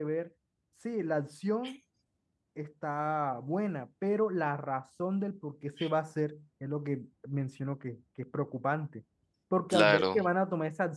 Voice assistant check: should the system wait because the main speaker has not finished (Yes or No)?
Yes